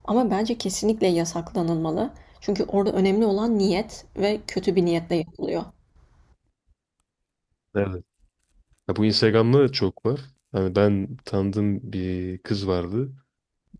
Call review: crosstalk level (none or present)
none